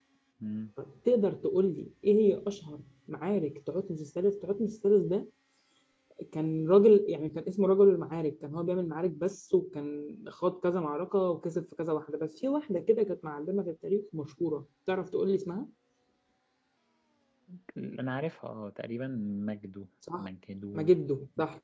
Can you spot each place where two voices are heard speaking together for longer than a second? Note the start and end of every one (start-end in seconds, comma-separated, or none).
none